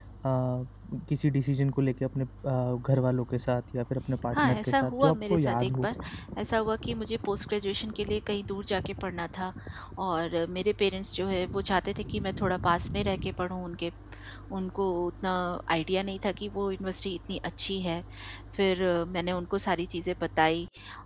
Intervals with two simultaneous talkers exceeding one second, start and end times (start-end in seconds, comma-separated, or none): 4.3-5.9